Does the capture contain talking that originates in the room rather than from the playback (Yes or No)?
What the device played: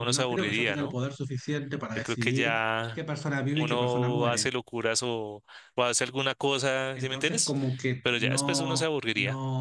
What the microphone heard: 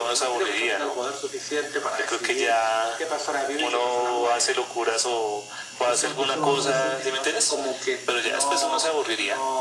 Yes